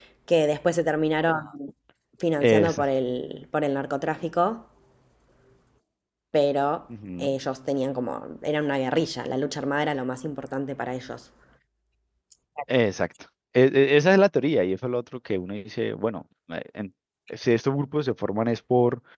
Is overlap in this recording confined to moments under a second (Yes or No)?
Yes